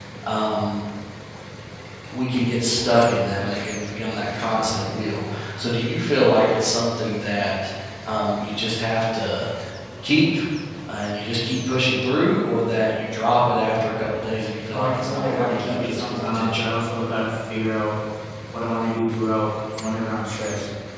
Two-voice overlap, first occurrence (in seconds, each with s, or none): 14.7 s